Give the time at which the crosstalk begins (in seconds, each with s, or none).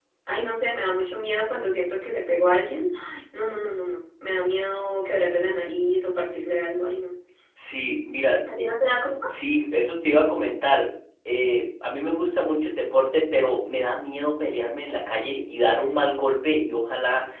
none